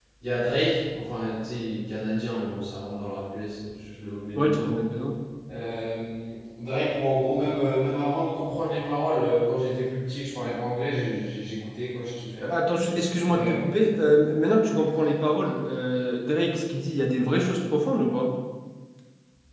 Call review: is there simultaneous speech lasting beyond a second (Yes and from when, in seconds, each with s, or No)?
No